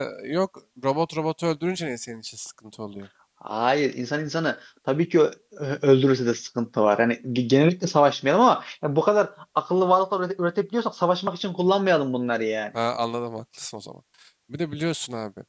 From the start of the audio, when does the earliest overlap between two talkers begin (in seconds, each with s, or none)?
none